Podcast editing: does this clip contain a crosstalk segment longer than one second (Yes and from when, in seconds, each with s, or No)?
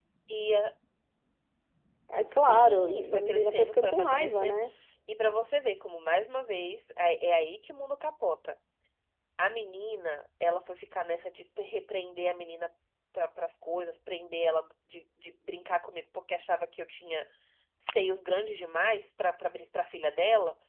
Yes, from 2.3 s